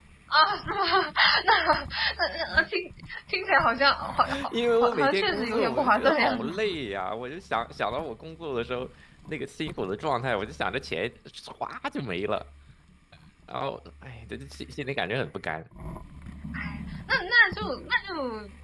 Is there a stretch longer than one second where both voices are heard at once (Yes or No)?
Yes